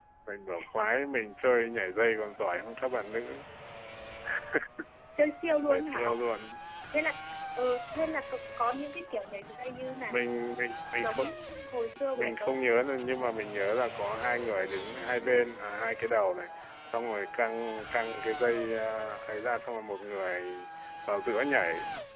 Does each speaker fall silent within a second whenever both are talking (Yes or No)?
Yes